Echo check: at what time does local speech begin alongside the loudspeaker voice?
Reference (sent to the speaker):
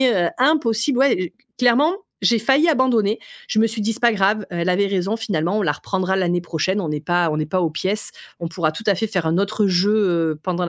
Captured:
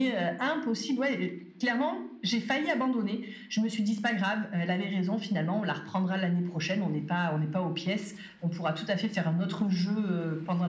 none

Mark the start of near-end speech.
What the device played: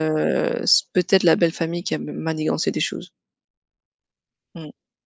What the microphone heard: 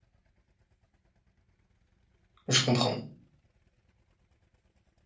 2 s

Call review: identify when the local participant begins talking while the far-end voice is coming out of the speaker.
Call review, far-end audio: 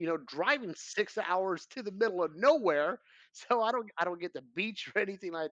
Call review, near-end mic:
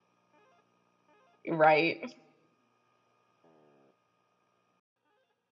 1 s

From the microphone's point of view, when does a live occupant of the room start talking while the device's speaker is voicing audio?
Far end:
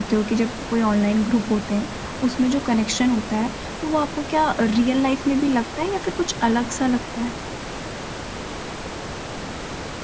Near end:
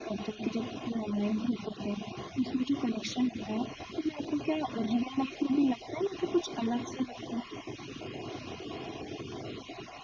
none

